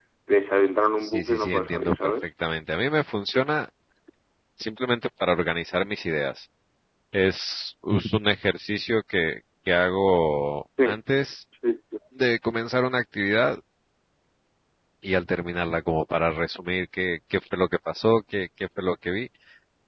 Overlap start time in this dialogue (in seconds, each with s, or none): 1.0 s